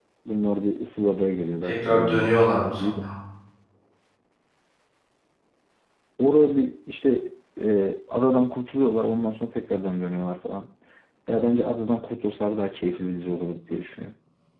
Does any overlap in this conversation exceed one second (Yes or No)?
Yes